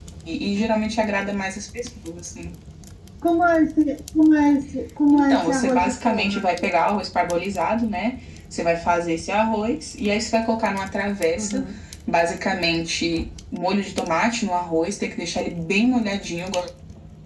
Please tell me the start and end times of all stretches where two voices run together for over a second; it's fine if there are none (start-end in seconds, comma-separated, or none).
5.1-6.8